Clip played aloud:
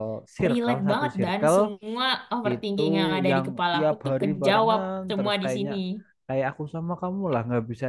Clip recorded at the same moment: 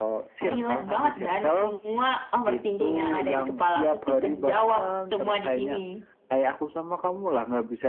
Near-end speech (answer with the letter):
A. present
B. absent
B